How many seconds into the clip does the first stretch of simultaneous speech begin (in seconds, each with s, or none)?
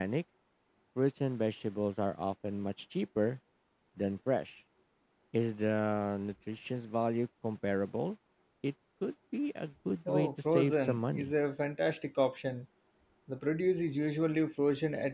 10.1 s